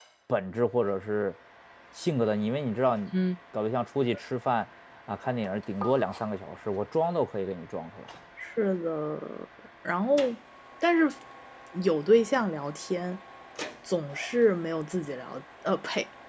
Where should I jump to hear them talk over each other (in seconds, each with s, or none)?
none